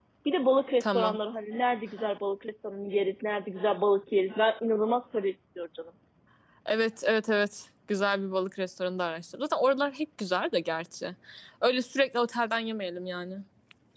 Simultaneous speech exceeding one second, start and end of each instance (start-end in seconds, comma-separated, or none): none